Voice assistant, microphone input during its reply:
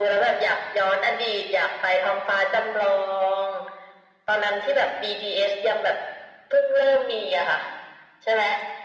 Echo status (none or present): present